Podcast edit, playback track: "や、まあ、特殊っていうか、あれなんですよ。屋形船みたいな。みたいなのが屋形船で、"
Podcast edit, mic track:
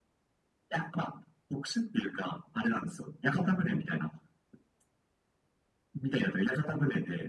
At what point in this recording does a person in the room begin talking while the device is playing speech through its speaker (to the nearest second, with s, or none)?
none